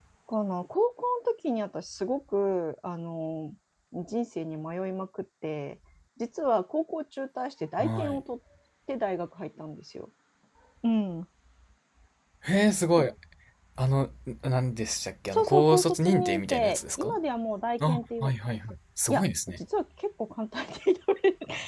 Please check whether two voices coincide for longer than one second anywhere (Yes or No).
Yes